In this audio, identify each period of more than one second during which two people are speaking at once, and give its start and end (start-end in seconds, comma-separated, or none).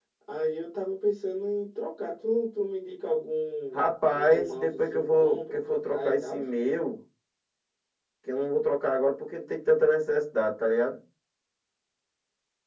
3.7-6.4